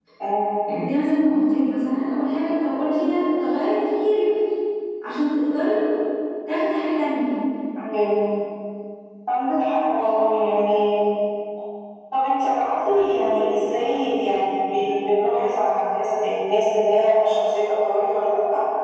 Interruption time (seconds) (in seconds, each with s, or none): none